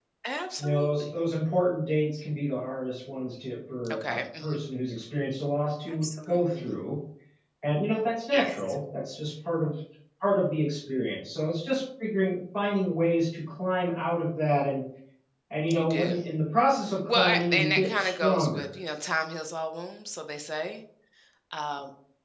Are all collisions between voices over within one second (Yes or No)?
No